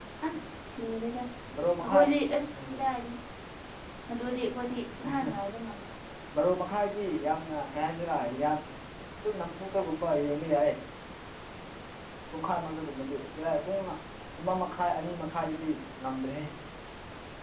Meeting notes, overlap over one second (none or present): none